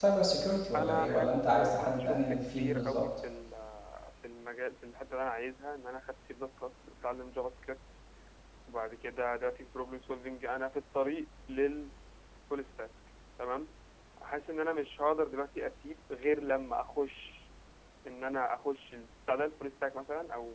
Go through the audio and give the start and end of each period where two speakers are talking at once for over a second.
0.8-3.0

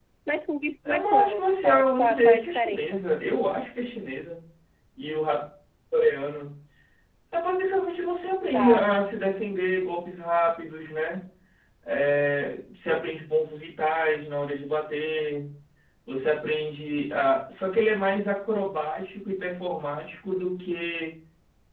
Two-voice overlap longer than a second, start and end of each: 0.8-3.0

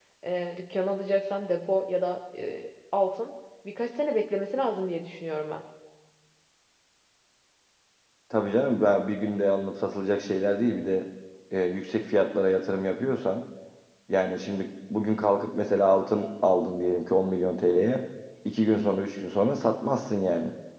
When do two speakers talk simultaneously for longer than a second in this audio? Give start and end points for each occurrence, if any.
none

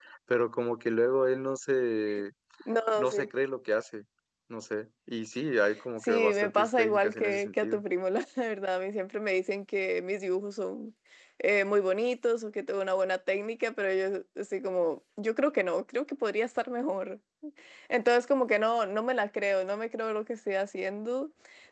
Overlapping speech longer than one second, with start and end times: 6.0-7.8

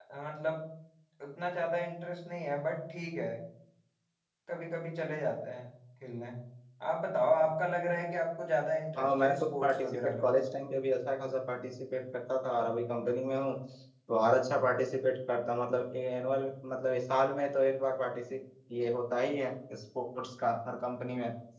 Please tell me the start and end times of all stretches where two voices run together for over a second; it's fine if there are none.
9.0-10.2

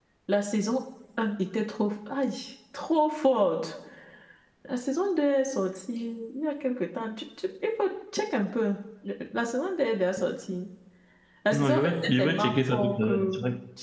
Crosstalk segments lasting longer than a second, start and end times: 11.5-13.2

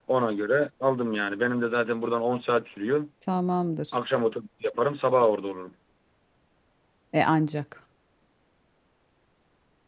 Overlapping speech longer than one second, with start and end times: none

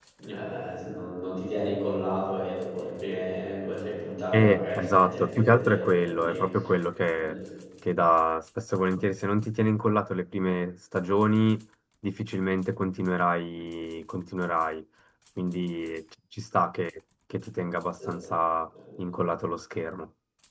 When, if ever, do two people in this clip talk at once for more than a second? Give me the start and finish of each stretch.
4.3-6.4

